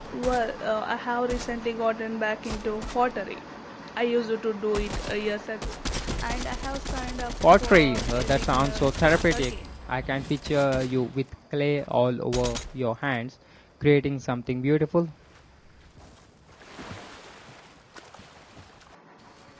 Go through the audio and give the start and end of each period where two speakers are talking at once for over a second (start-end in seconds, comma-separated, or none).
7.4-9.7